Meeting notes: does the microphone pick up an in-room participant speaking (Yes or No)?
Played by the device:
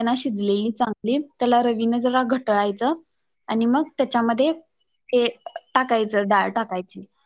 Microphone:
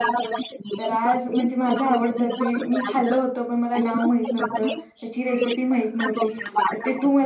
Yes